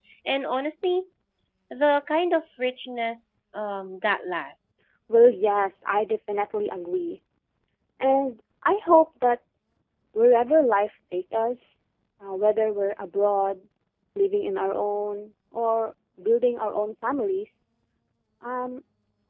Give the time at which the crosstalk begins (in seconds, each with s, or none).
none